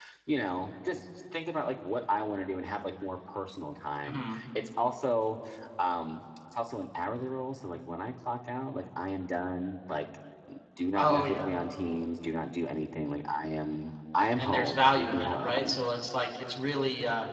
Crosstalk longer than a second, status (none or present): present